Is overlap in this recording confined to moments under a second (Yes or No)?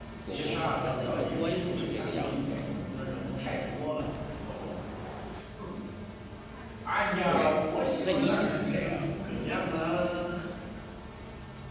No